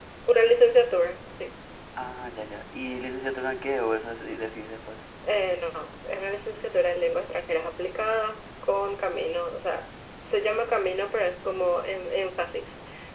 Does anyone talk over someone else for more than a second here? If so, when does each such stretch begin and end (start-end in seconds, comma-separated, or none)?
none